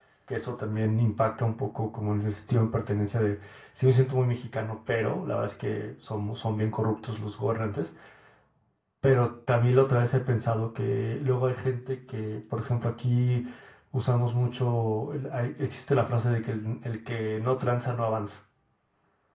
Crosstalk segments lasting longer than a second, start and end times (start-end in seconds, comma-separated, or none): none